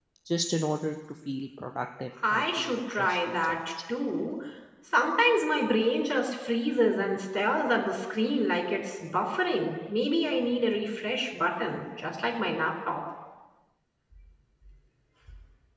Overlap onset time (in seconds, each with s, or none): 2.2 s